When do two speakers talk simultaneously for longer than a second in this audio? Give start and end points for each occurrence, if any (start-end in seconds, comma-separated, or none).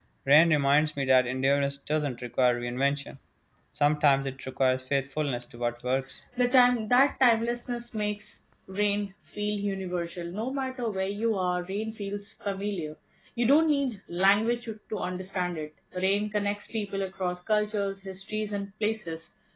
none